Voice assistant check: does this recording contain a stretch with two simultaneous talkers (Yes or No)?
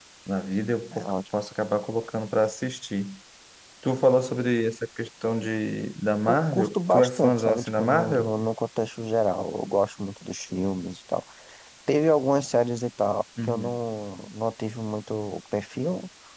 Yes